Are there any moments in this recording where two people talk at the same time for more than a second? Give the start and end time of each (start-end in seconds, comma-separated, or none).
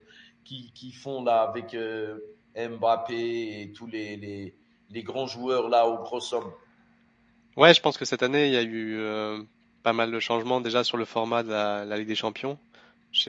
none